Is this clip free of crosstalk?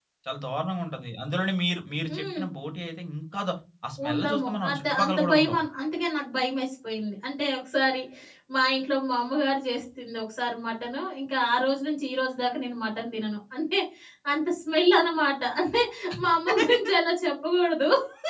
No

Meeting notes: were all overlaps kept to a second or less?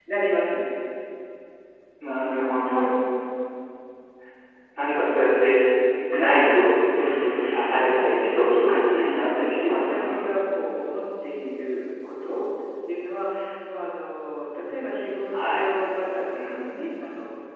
No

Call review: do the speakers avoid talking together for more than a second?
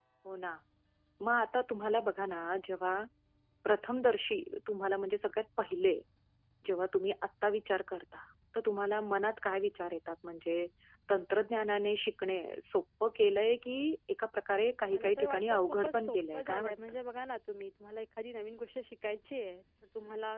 No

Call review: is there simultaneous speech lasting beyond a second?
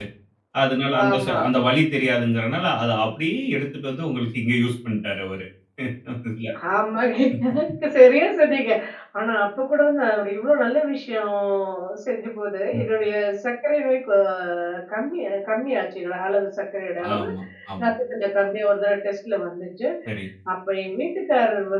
No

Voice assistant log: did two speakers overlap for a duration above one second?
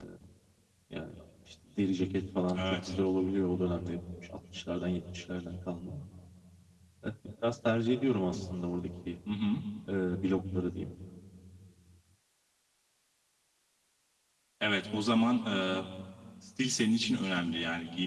No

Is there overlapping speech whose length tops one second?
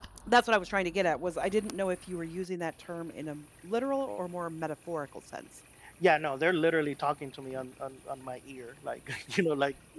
No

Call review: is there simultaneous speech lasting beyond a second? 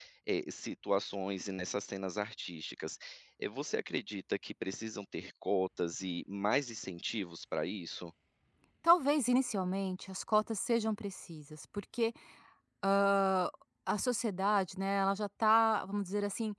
No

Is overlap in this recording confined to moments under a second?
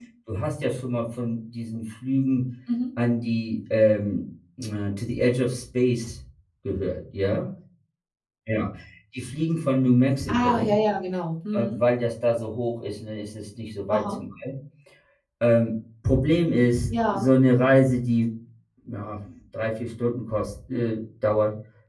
Yes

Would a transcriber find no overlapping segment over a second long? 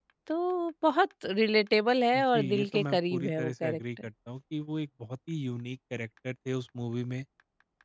No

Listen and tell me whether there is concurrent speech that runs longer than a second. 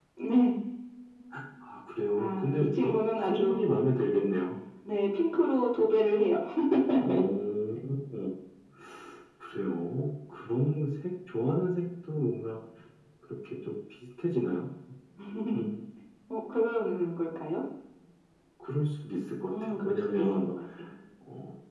Yes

